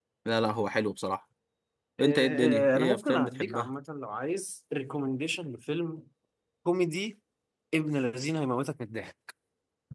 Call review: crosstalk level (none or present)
present